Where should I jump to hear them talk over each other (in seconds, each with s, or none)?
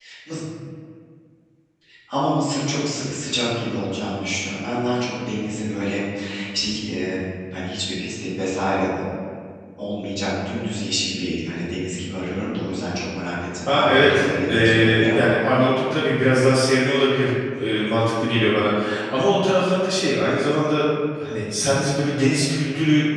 13.7 s